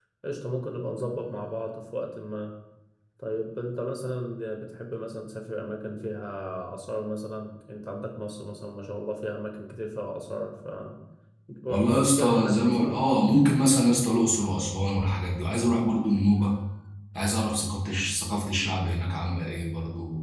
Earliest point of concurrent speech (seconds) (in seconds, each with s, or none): 11.7 s